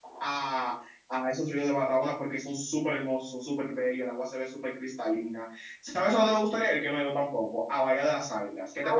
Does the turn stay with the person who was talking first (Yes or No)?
No